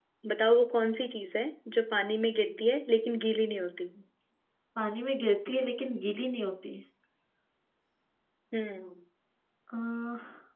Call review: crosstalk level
none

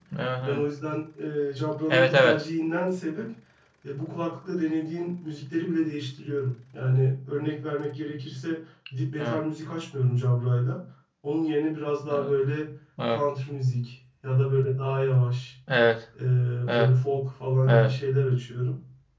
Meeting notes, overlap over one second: none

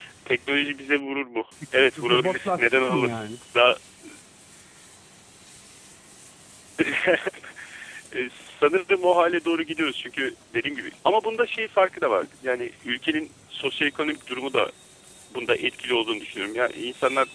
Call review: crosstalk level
present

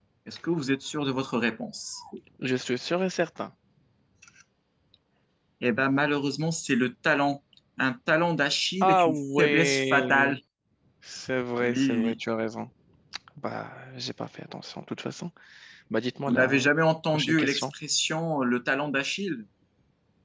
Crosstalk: present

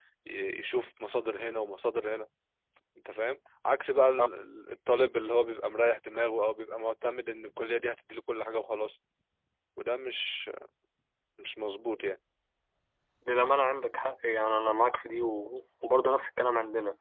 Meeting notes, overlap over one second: none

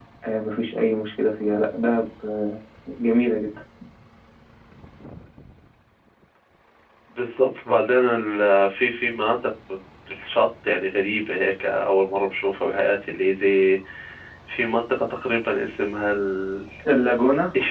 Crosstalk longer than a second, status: none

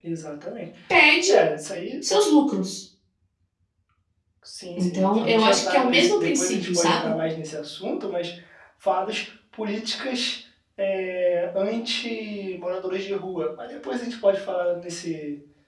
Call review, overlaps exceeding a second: present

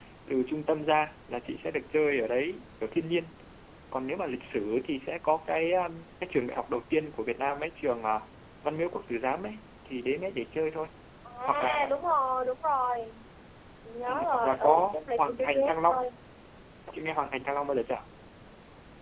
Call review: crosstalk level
present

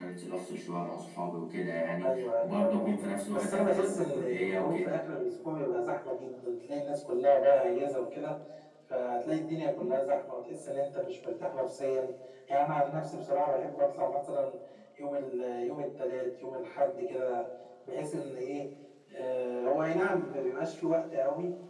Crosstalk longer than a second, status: present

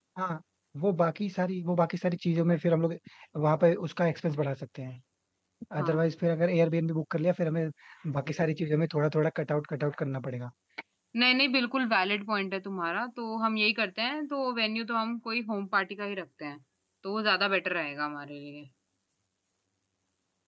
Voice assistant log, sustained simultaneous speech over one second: none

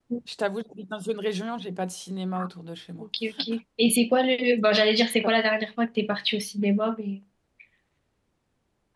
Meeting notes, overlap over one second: none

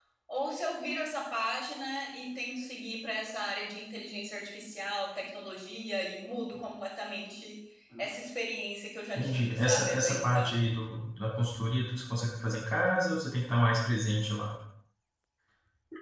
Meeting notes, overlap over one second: present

